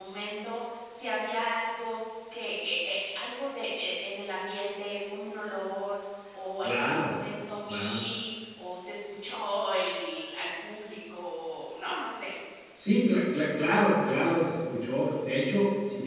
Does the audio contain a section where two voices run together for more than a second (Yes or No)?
No